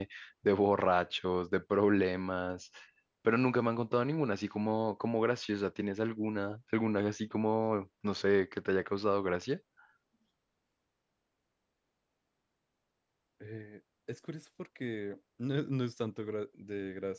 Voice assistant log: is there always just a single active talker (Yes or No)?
Yes